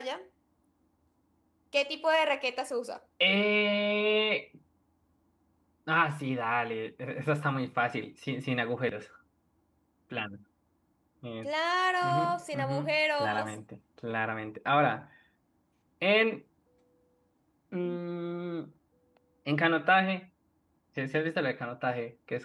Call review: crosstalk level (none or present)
present